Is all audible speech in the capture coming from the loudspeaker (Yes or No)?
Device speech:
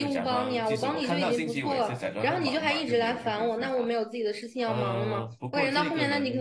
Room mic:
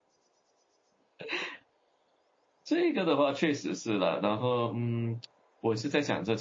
No